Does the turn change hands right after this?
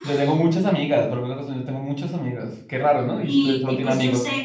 Yes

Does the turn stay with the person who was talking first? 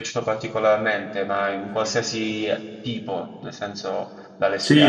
No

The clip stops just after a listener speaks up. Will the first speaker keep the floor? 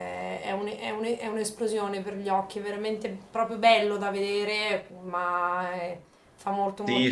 No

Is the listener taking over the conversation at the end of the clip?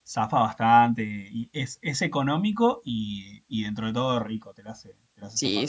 Yes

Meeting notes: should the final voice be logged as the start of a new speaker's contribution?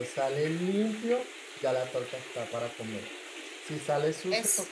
No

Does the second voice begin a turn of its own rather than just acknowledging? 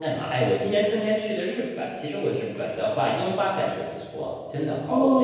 Yes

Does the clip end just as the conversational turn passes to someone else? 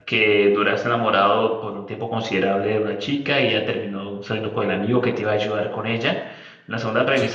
No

